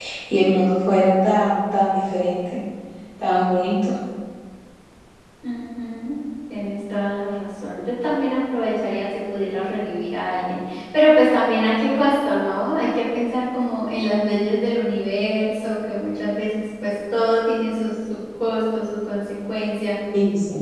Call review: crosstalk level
none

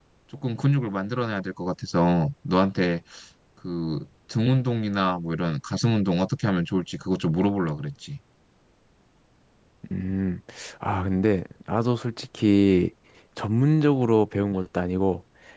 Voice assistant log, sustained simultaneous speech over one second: none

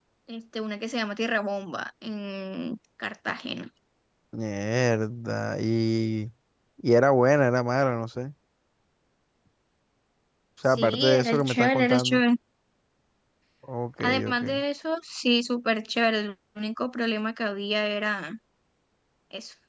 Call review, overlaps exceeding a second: present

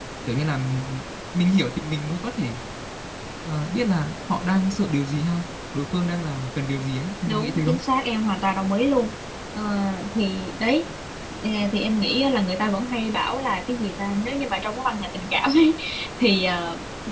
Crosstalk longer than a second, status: none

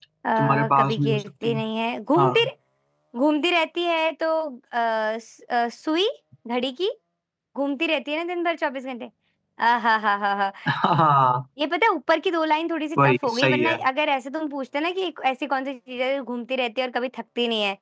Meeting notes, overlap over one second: present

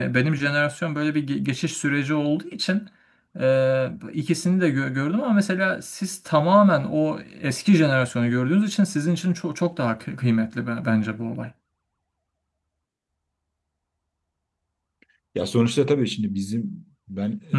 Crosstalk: none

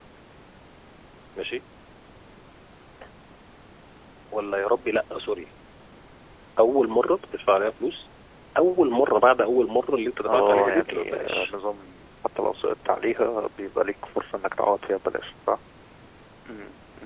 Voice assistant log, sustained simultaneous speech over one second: present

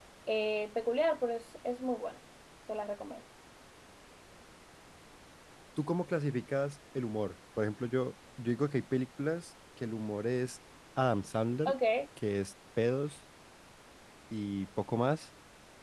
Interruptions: none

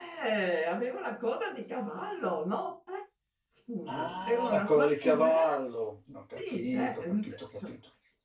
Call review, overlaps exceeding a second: present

